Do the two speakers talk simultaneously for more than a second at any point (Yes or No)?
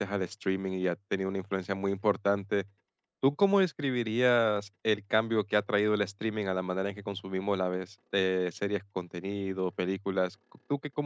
No